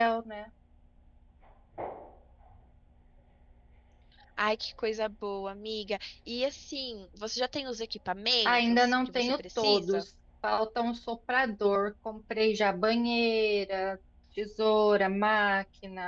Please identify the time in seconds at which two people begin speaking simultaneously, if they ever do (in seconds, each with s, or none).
8.4 s